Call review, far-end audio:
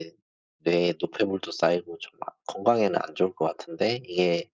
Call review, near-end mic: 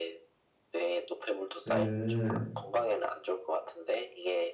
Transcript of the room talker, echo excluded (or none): 음.